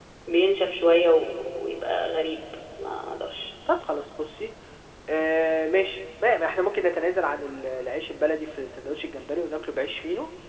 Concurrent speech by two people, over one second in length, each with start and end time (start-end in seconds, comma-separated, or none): none